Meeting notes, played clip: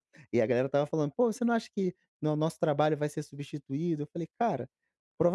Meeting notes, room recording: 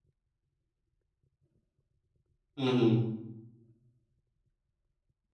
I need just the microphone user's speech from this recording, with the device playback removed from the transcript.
Uhum.

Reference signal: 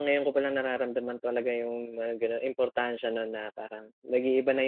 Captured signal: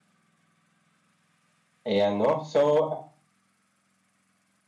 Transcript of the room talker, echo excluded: Ayan 'no. So, ah

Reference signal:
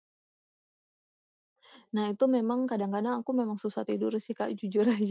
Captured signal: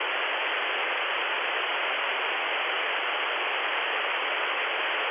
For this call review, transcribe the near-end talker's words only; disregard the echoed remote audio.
none

